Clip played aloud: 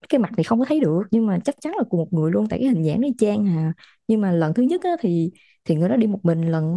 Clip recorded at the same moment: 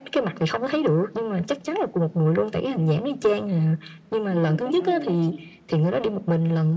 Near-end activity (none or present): present